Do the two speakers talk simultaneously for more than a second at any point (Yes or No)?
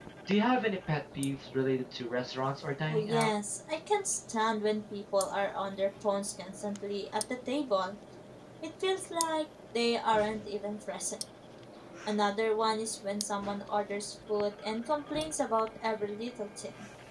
No